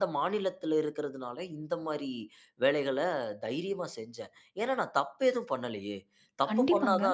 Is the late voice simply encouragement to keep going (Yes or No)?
Yes